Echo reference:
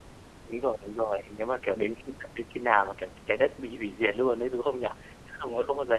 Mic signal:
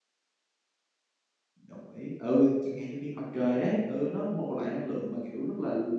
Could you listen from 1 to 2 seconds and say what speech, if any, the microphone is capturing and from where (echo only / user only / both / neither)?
user only